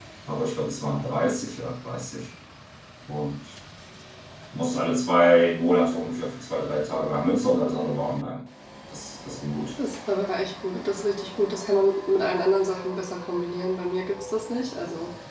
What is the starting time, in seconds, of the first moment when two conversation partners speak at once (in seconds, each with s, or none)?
none